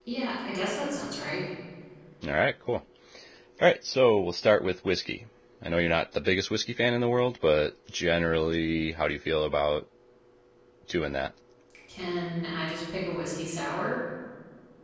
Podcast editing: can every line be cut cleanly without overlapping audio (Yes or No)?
Yes